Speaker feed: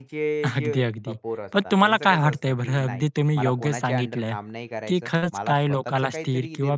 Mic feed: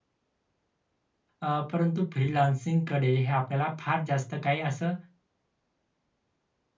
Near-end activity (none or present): present